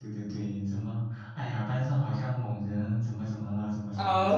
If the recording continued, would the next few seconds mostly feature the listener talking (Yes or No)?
Yes